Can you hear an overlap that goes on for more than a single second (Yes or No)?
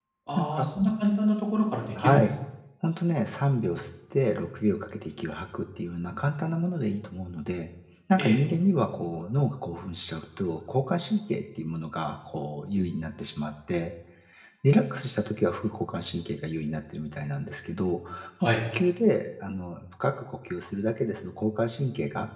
No